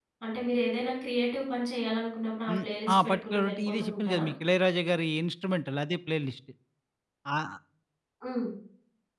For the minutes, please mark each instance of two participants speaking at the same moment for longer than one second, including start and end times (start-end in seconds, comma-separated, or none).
2.5-4.2